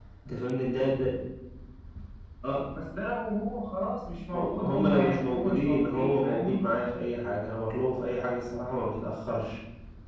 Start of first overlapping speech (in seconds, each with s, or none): 4.3 s